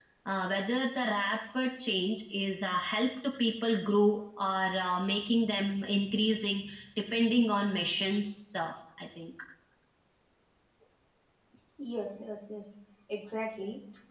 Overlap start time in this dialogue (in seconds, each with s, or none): none